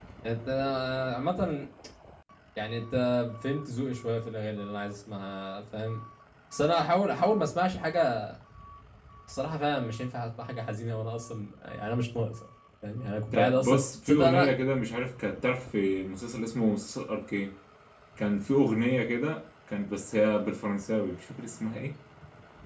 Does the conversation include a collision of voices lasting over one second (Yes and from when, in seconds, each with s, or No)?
Yes, from 13.3 s